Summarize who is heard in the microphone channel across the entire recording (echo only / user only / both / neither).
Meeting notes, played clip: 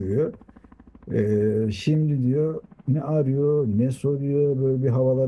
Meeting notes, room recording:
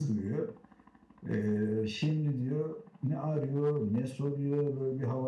echo only